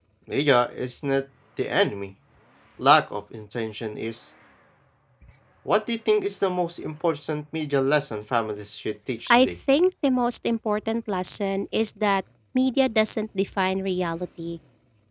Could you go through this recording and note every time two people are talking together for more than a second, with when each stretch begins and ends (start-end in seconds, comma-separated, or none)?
none